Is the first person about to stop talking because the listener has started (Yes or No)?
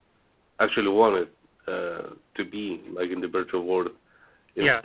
Yes